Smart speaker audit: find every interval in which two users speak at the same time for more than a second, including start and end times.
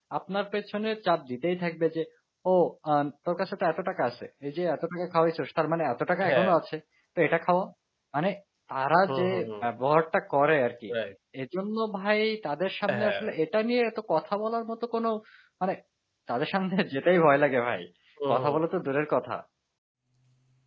none

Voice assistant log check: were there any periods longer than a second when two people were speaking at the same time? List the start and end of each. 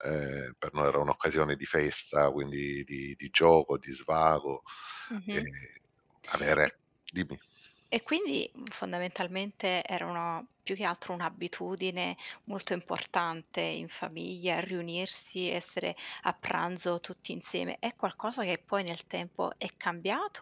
none

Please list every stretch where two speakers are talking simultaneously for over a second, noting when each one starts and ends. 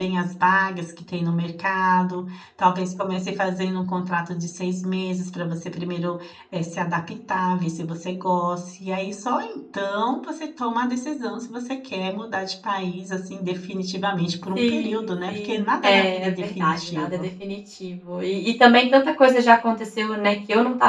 14.6-17.3

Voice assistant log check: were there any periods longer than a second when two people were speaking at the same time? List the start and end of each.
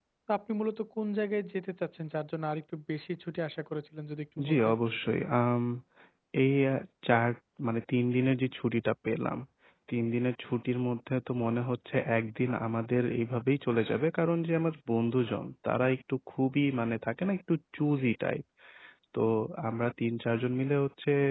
none

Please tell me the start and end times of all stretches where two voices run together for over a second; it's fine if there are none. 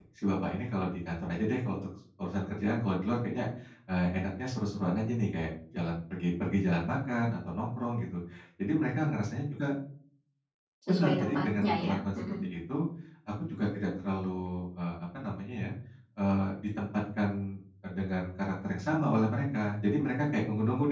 10.9-12.2

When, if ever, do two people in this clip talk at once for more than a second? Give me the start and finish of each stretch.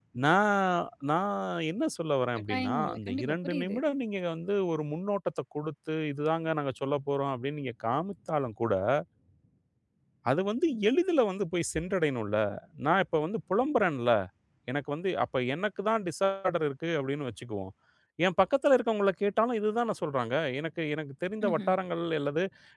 2.5-3.8

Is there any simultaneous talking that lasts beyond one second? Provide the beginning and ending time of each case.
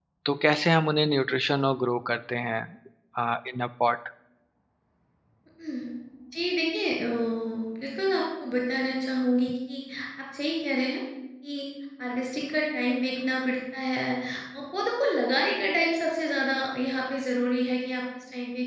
none

